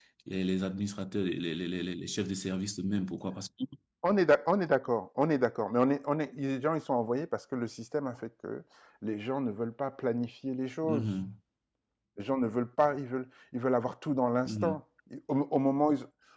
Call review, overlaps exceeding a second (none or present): none